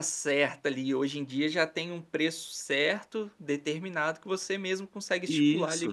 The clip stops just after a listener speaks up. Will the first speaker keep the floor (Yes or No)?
No